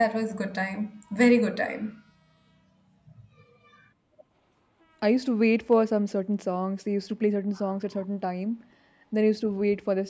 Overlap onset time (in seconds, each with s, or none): none